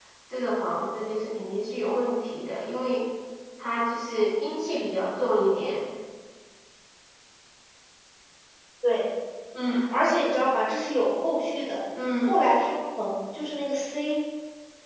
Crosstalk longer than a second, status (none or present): none